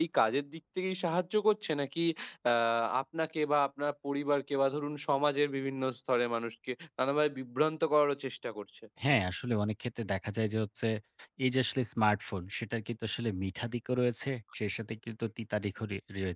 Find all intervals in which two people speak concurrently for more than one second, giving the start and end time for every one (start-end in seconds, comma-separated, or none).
none